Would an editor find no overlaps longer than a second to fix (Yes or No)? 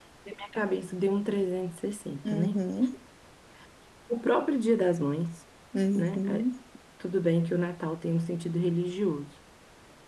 Yes